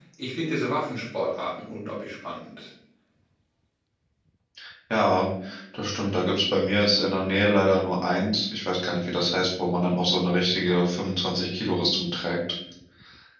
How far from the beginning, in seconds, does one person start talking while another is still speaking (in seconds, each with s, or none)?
none